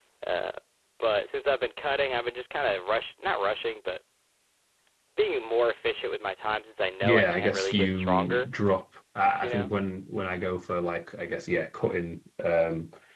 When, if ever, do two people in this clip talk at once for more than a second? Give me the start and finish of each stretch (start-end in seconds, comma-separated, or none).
7.0-8.5